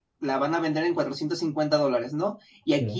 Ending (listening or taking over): listening